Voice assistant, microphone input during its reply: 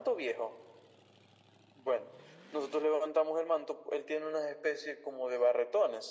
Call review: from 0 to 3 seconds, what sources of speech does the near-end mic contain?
echo only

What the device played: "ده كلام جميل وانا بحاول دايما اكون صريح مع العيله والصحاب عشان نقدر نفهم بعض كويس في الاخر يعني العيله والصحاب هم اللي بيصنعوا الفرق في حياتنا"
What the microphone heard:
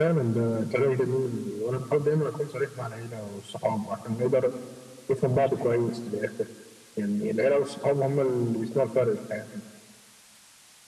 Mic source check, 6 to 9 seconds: echo only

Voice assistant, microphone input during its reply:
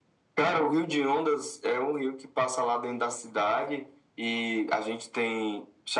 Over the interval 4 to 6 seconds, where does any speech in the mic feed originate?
echo only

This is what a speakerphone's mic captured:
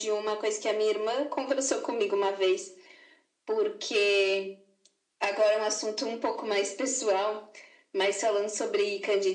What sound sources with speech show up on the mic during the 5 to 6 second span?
echo only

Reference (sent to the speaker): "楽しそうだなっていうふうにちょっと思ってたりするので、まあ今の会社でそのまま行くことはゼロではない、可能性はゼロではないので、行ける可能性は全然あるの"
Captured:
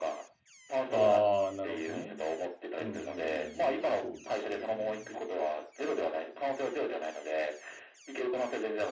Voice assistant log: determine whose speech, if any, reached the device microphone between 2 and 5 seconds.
both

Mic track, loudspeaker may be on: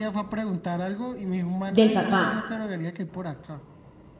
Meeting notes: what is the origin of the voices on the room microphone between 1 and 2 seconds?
both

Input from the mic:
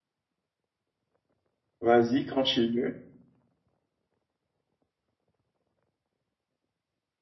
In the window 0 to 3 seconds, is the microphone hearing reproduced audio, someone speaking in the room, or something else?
user only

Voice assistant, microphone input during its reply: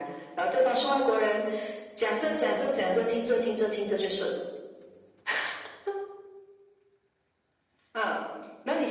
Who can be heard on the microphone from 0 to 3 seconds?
echo only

